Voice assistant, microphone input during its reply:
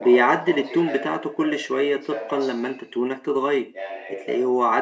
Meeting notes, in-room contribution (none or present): present